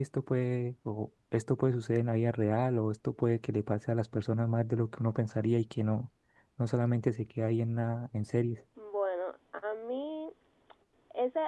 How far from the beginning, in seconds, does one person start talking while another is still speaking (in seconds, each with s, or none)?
none